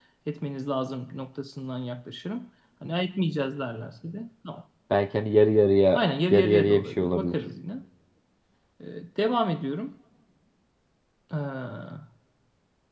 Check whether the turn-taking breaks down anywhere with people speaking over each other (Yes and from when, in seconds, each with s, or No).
Yes, from 5.9 s